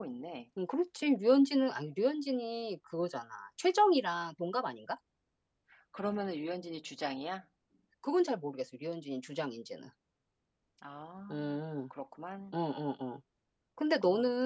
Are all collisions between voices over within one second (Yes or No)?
Yes